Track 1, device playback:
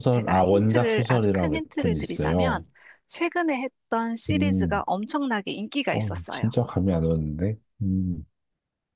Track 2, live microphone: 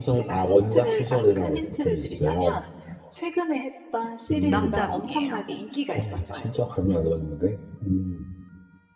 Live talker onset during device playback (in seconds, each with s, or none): 4.4 s